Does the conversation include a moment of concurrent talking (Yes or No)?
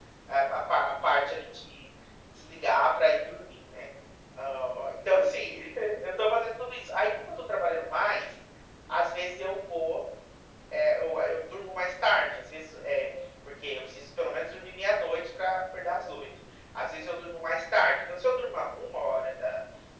No